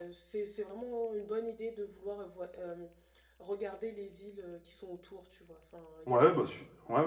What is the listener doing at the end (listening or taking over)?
taking over